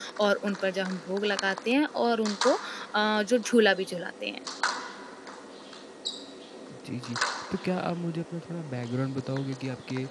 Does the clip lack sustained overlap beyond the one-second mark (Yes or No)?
Yes